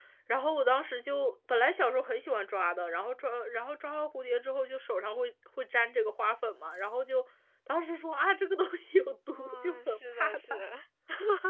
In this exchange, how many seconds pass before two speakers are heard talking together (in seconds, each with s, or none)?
9.3 s